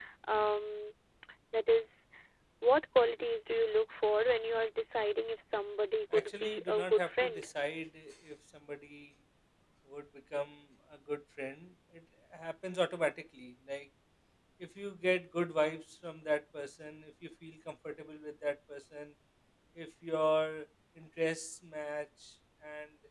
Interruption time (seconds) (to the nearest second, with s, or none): 6 s